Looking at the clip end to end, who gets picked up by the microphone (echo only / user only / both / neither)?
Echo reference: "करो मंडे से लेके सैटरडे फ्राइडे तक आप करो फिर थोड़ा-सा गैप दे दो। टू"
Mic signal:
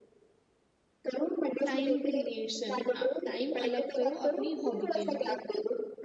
both